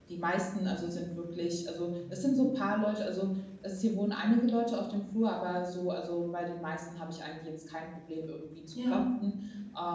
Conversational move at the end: listening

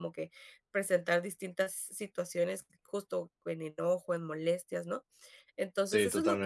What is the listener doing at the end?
listening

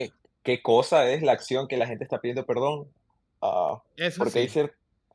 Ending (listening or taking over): listening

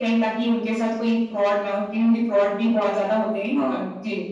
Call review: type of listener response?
taking over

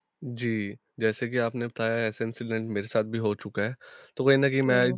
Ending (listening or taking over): listening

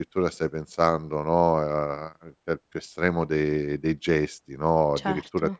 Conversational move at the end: listening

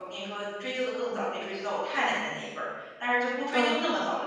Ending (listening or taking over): listening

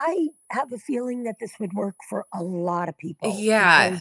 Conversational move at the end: taking over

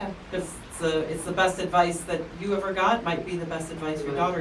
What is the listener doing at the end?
listening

